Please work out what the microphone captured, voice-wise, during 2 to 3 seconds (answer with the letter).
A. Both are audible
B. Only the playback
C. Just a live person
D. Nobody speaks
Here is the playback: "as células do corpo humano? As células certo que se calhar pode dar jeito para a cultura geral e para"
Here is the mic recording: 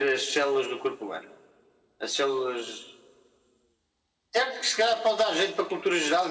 B